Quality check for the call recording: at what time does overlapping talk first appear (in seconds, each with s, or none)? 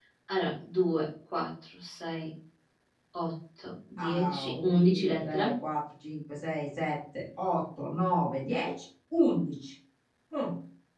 4.0 s